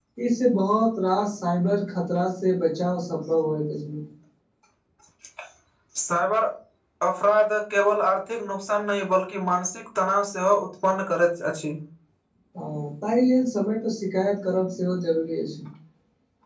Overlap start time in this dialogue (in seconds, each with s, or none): none